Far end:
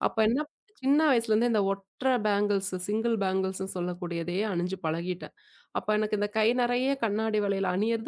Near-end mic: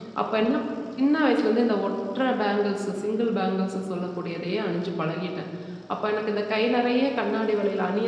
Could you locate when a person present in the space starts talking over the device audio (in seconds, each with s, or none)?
none